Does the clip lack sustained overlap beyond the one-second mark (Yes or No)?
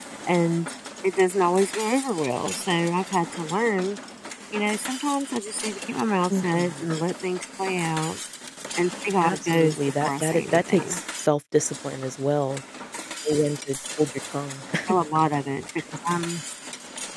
No